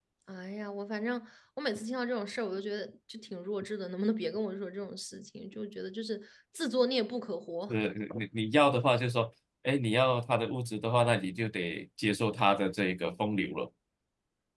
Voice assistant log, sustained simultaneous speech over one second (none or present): none